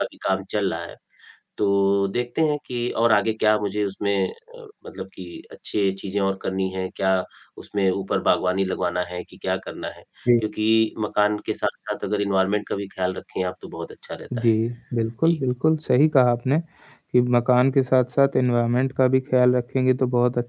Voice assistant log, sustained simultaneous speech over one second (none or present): none